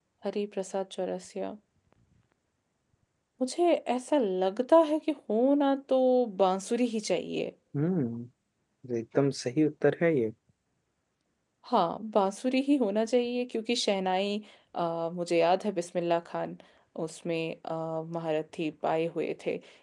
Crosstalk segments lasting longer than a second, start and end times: none

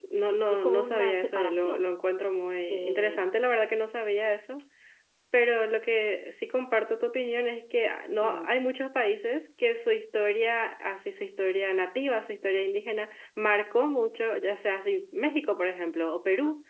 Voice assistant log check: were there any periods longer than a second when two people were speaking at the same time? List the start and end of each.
0.5-1.8

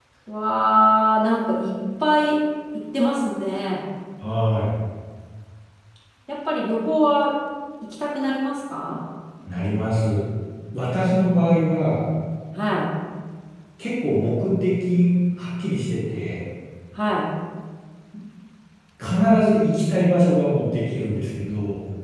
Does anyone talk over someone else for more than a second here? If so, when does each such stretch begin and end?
none

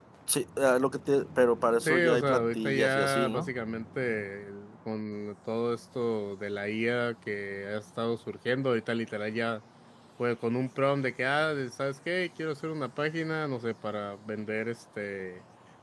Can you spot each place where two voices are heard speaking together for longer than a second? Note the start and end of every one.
1.8-3.5

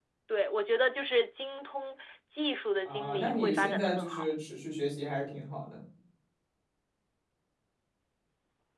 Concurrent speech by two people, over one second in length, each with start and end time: 2.8-4.3

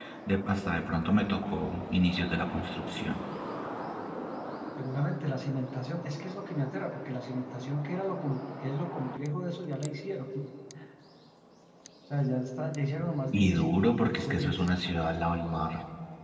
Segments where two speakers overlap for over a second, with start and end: 13.3-14.6

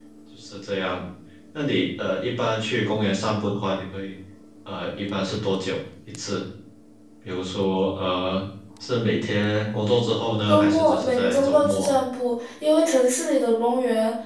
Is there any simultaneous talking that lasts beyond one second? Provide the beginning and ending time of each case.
10.5-11.9

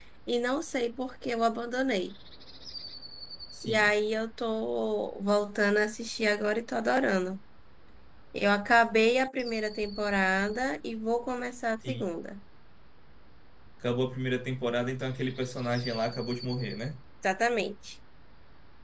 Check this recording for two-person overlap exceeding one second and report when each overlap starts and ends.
none

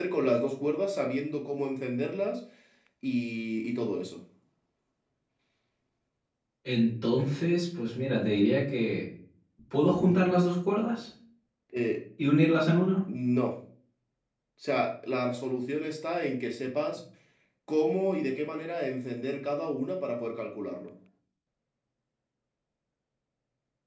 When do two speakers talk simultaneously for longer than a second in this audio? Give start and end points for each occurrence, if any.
none

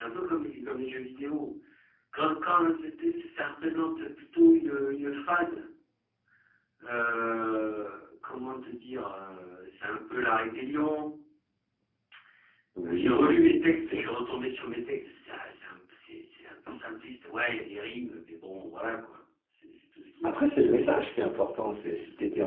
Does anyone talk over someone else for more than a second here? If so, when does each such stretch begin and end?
12.8-14.1

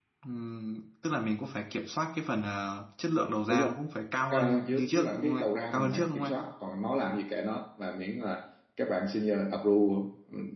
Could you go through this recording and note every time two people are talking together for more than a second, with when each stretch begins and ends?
4.3-6.4

